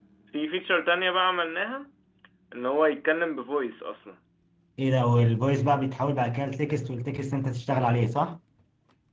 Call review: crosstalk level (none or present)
none